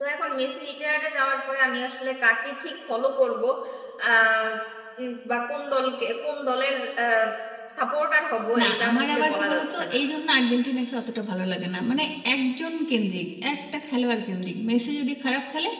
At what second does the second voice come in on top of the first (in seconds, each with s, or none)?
8.6 s